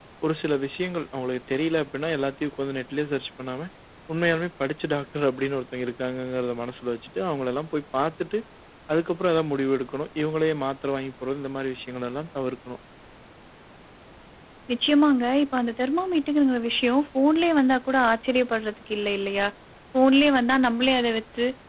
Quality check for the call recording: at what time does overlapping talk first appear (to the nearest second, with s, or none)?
none